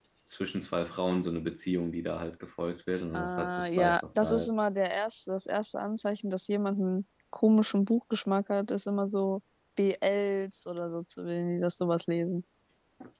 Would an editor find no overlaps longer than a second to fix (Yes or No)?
No